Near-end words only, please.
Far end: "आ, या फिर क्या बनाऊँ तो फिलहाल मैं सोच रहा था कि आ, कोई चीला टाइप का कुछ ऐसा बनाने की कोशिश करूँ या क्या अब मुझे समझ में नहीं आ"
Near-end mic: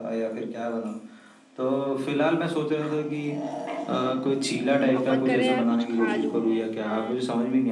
अब मन कर रहा है यार कुछ खा लूं मैं हाँ

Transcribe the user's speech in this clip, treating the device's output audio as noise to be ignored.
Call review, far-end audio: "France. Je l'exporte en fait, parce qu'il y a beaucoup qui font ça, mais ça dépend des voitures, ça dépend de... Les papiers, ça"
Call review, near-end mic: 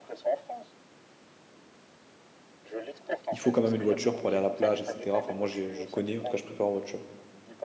il faut quand même une voiture pour aller à la plage, etc. Enfin, moi, je, je connais, en tout cas, je préfère en voiture.

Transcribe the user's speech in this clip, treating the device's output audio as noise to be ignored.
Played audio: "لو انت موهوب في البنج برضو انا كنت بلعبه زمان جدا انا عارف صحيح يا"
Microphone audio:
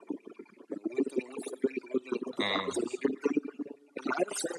اه

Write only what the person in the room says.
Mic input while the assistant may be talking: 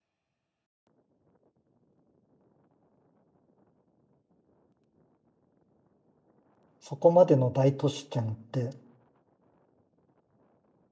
そこまでの大都市圏って、

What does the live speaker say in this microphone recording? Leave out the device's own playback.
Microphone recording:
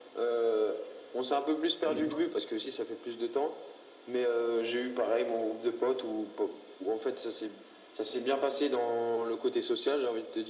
Et toi?

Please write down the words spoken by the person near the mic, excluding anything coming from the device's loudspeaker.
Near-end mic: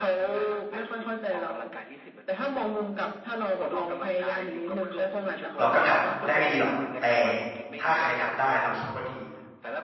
เราก็ทำได้ไม่ดีหรอกแต่ถ้าใครทำได้เราคิดว่าดี

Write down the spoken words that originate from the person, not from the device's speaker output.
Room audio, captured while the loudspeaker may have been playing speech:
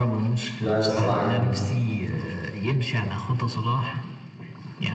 ده الصراحة جامد

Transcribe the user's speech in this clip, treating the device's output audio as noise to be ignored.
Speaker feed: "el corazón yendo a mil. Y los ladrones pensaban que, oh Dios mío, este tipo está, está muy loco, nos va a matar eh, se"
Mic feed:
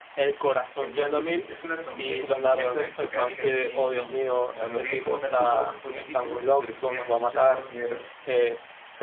Entonces u- es una familia como inglesa aristocrática, así. No, no tienen como tanto poder político, pero sí tienen mucho dinero

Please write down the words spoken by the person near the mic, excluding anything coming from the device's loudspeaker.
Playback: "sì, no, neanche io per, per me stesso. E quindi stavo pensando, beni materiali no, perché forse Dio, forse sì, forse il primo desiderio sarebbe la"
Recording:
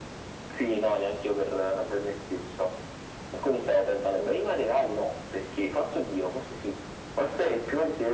none

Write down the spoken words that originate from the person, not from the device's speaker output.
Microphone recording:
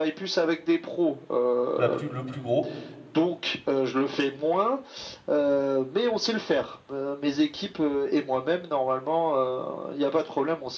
la plus, le plus gros.

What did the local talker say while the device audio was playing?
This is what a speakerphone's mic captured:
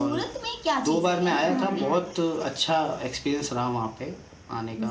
हाँ हाँ हाँ

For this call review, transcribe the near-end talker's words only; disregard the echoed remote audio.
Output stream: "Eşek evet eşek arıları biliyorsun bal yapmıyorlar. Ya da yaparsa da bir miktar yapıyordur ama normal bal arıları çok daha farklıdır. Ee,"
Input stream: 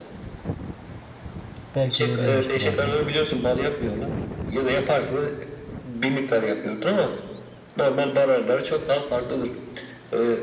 Belki de öyleymiştir abi ya.

